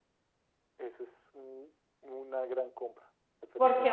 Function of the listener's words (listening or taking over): taking over